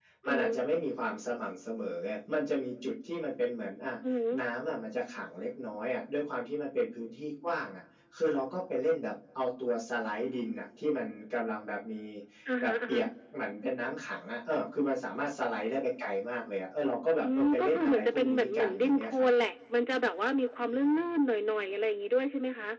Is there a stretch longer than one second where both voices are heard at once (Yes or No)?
Yes